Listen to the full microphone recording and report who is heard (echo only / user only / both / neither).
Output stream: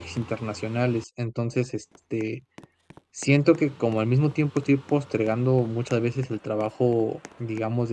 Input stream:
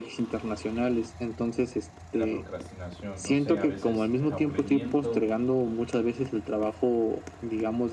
both